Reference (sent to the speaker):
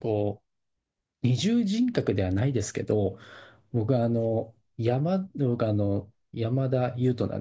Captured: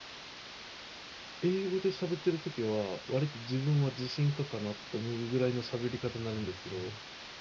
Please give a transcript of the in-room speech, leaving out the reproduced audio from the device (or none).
英語で喋ってるときは、割と自分は自信家かなって思うぐらいの喋り方になるんですけど、